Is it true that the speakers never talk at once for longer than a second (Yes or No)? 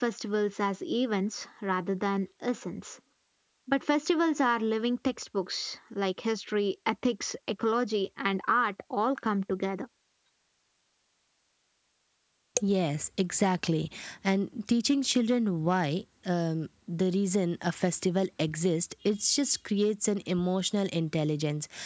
Yes